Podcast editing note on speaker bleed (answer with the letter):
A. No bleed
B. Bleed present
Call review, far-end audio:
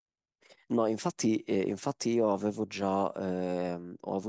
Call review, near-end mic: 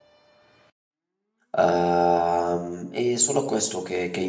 A